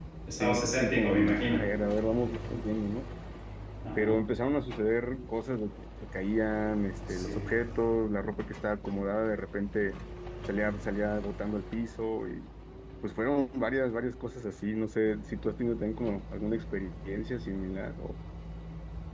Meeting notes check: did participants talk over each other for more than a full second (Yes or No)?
Yes